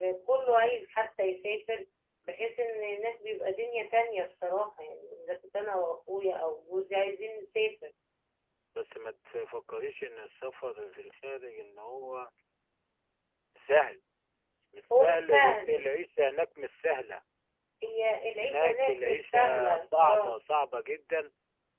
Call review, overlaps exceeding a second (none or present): present